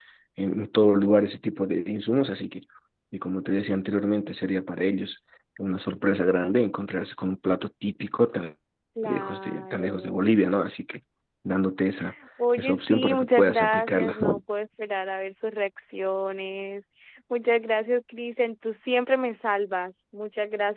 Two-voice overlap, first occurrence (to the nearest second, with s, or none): 9 s